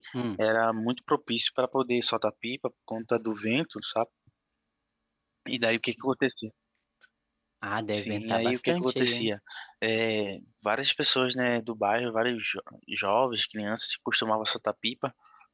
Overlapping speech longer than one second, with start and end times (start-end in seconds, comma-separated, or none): 7.9-9.3